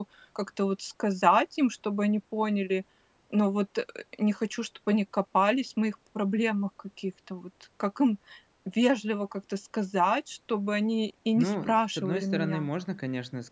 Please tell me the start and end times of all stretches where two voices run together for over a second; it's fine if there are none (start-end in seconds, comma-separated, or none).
11.3-12.7